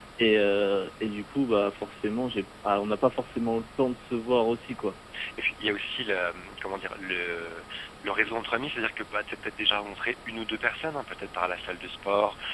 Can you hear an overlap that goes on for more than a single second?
No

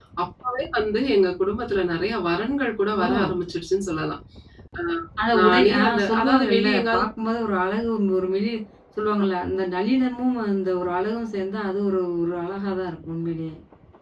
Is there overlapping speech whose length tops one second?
Yes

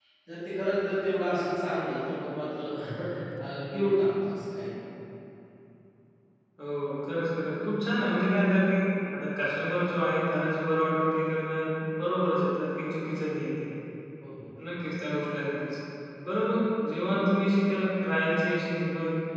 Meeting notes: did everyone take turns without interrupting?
Yes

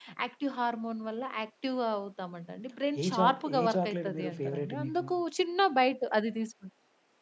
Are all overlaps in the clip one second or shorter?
No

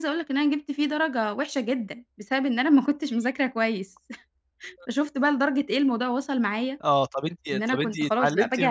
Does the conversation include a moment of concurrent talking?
Yes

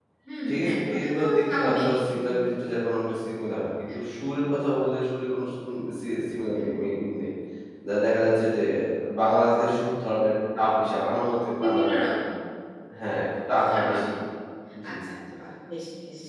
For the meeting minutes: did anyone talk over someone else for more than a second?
Yes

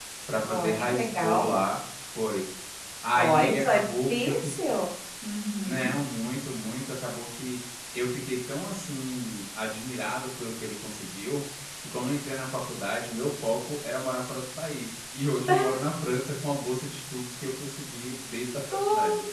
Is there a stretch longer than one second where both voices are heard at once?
Yes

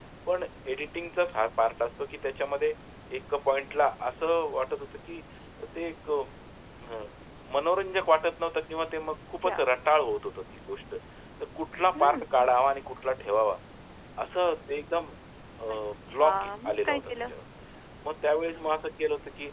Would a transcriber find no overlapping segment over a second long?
No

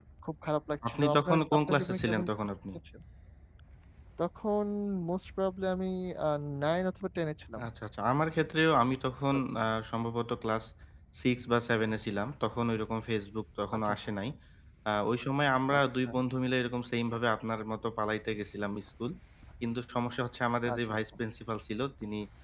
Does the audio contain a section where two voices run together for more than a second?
Yes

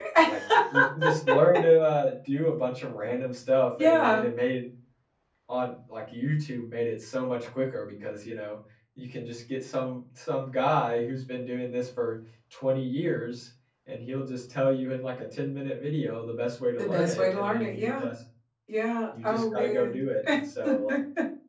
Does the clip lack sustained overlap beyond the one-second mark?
No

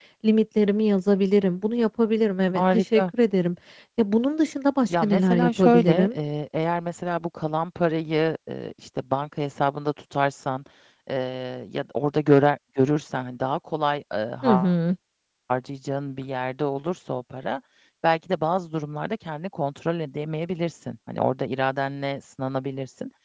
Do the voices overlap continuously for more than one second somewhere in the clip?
Yes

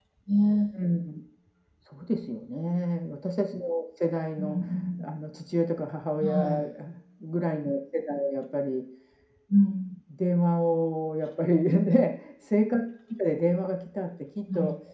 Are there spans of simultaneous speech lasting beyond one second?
No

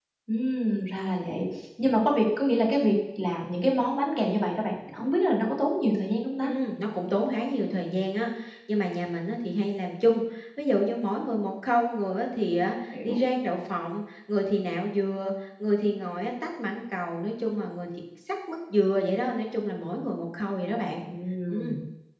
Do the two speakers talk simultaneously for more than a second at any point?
No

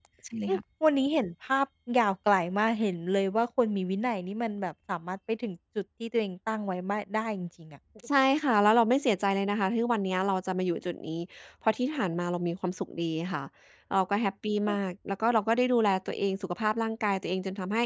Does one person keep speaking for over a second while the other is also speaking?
No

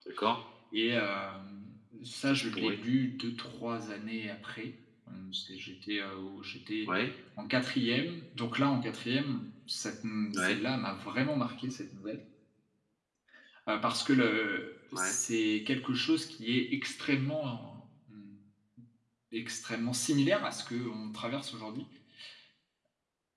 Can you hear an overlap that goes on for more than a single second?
No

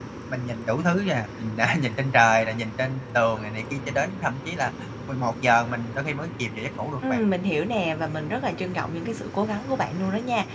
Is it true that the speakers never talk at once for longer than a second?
Yes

